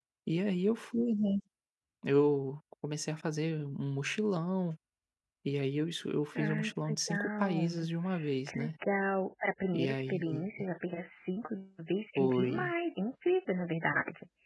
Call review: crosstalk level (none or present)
present